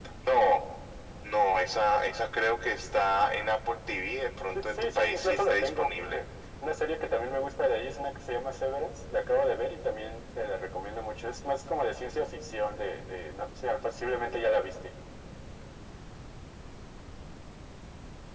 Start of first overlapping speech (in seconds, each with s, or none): 4.5 s